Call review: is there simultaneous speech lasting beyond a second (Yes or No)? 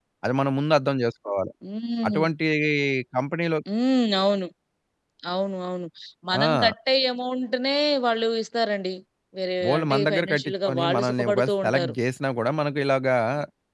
Yes